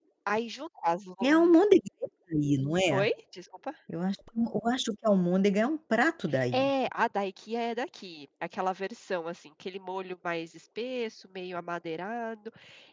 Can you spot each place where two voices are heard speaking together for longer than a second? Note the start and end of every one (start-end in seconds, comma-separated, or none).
none